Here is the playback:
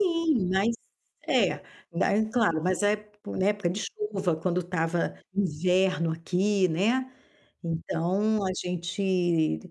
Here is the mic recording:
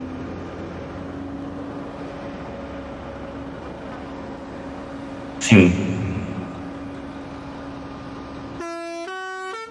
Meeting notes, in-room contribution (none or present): present